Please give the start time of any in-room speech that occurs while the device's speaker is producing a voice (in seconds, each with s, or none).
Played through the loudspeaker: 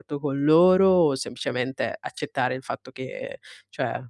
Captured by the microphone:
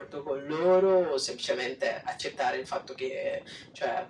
none